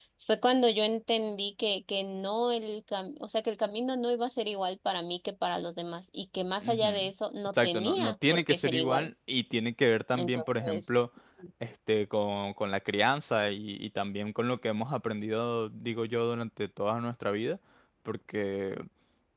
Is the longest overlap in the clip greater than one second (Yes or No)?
Yes